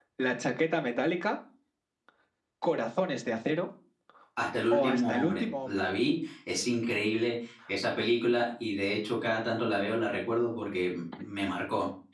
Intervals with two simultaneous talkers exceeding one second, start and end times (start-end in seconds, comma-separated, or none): 4.7-5.9